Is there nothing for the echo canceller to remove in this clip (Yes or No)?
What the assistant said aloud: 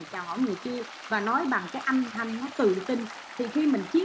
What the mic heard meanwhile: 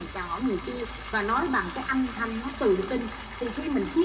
No